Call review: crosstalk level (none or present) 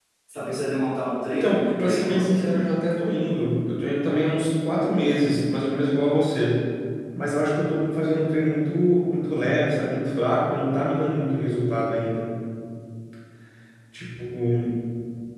present